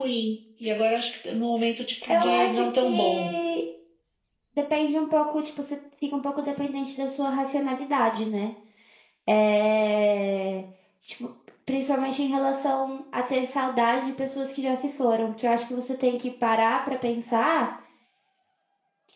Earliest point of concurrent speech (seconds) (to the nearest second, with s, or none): 2 s